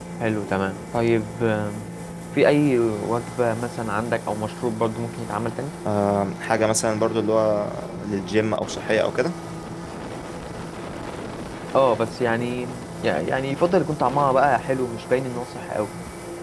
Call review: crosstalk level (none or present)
none